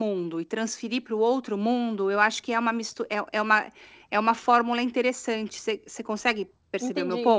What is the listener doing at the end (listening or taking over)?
taking over